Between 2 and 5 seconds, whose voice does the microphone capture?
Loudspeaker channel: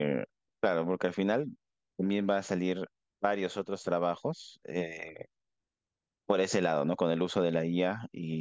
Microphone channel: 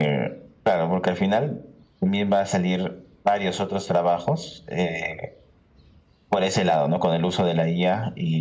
echo only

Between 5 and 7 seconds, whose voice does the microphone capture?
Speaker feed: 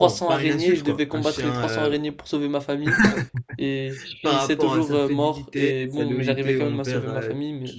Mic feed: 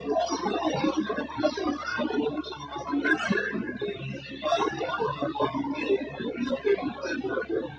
echo only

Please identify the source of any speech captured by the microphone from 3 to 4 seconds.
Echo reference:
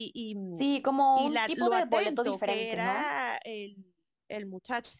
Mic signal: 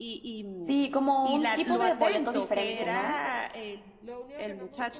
both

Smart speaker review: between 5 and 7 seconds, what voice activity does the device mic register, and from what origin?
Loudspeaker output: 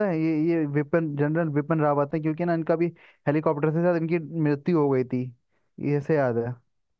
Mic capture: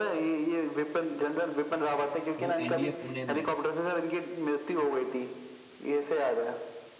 echo only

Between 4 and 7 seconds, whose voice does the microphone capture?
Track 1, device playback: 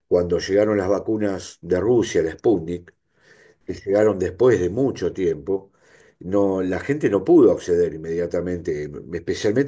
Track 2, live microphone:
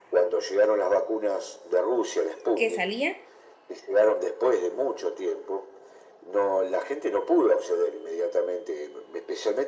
echo only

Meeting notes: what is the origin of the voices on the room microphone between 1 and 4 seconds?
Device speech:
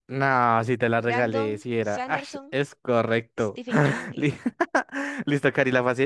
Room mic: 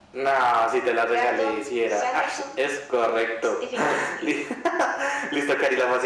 echo only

